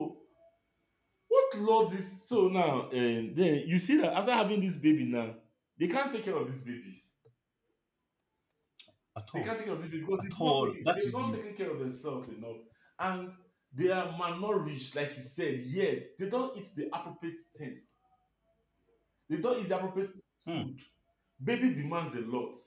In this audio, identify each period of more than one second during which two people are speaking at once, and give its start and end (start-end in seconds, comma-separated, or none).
10.2-11.4